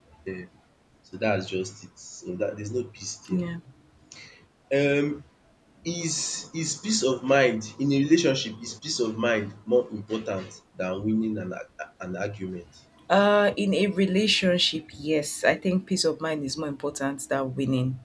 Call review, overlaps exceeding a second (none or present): none